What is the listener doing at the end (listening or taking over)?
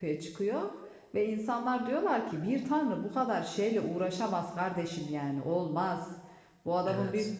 listening